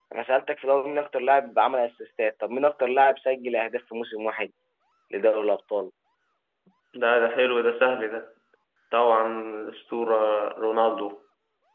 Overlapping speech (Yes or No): No